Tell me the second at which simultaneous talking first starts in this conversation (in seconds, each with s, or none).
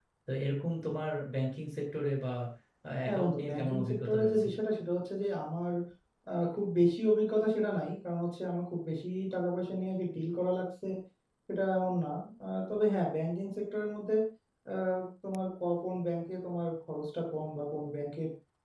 3.1 s